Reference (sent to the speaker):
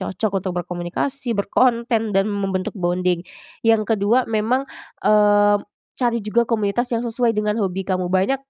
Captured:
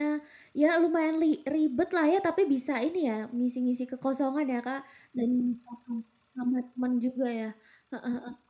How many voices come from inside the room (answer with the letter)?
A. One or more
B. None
A